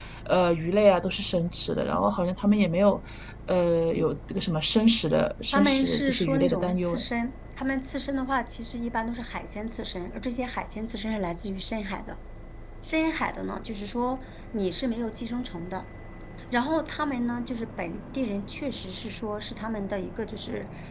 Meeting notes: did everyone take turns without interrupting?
No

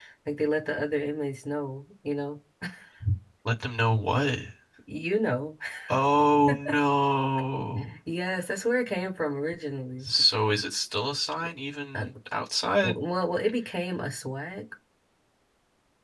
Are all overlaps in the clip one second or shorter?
Yes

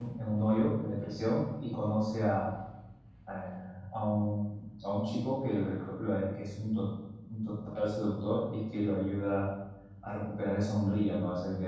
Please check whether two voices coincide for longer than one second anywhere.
No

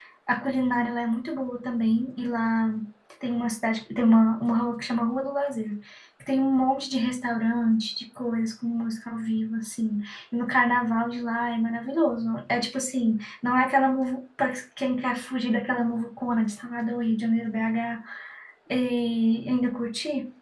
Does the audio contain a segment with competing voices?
No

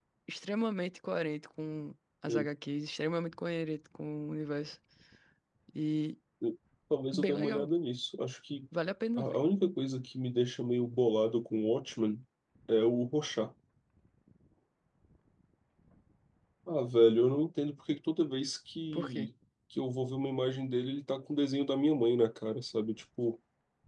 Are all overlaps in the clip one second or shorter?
Yes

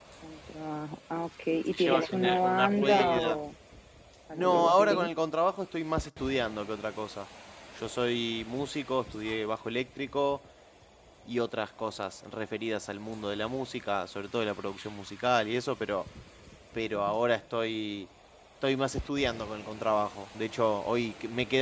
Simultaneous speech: Yes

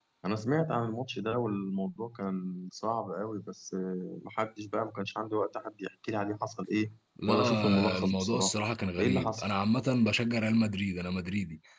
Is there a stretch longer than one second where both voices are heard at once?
Yes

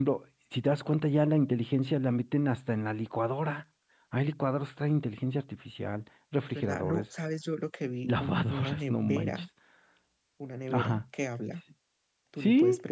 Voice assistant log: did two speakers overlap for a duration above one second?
Yes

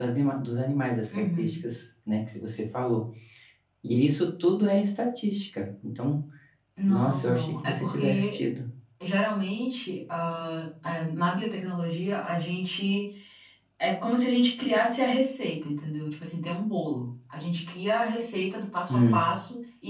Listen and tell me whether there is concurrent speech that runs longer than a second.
Yes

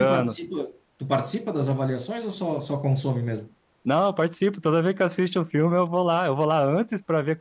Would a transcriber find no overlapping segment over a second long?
Yes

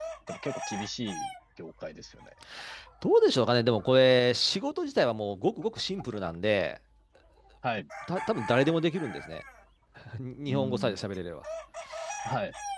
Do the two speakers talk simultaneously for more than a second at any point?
No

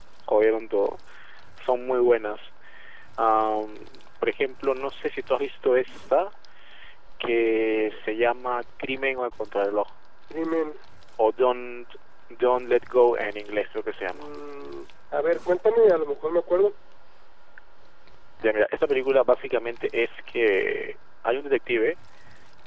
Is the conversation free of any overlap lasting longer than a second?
Yes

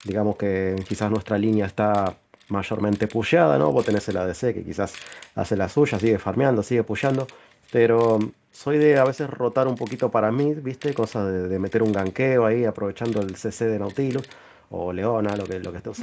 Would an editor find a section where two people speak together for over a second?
No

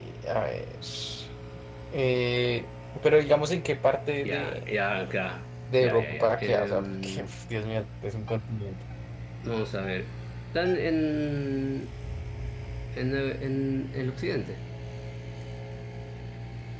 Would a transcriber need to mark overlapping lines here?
Yes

